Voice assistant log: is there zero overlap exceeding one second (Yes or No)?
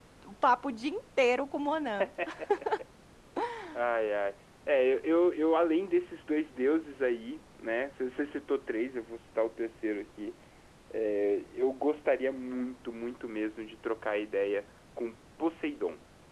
Yes